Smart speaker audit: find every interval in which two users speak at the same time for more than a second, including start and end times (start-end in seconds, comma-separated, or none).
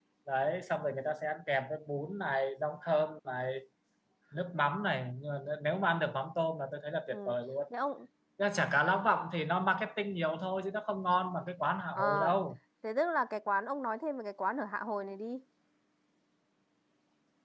none